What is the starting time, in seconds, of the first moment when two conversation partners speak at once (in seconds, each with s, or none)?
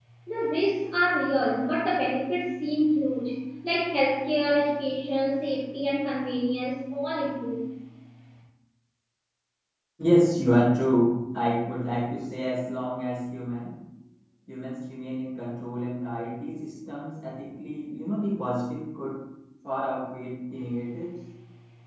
none